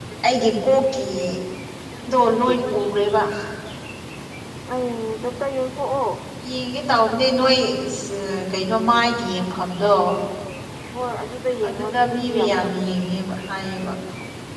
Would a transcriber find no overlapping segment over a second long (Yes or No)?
No